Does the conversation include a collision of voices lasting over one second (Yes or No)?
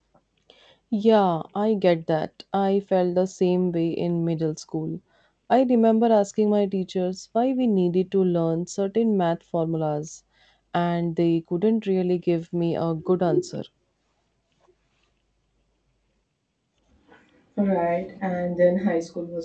No